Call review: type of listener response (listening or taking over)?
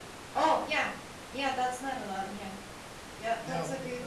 taking over